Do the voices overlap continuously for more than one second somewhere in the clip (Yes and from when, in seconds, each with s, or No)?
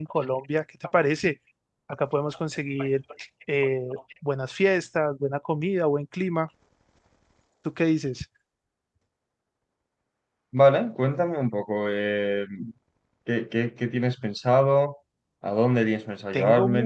No